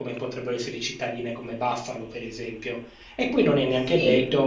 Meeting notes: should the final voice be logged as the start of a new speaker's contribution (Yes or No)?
No